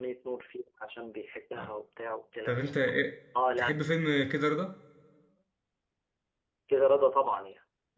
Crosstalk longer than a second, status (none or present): none